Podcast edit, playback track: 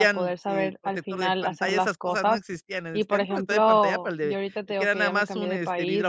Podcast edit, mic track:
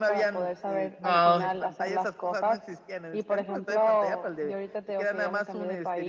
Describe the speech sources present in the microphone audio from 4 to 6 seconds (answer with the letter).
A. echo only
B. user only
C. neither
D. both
A